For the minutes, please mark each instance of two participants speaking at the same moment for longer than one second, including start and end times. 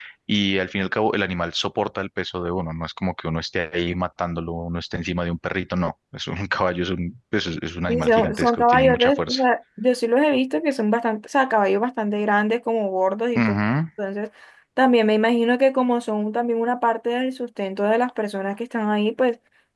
7.9-9.4

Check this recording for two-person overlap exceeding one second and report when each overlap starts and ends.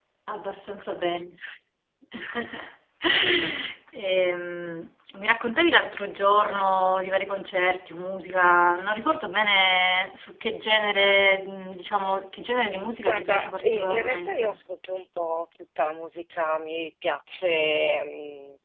13.0-14.6

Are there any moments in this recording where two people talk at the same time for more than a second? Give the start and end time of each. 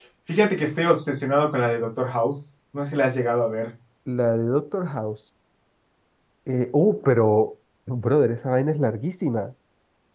none

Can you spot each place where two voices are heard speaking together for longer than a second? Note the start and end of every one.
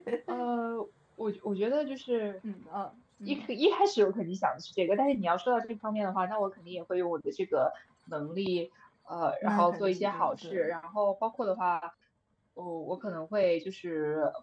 9.4-10.7

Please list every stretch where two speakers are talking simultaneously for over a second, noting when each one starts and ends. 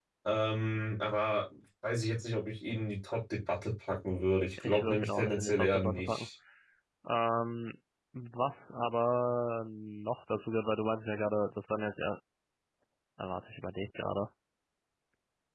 4.6-6.3

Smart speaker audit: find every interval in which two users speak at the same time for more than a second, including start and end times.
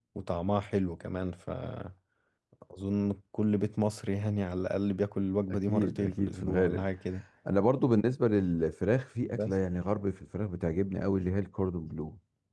5.5-6.9

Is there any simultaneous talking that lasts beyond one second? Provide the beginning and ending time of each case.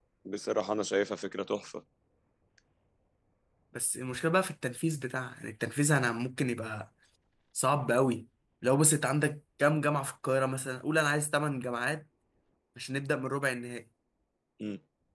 none

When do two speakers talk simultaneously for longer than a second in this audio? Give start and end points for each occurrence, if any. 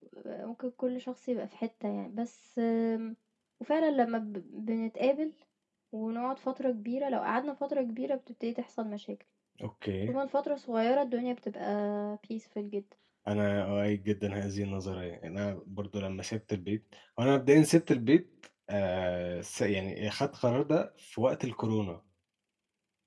none

